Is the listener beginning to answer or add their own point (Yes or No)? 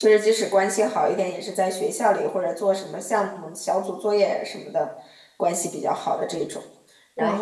No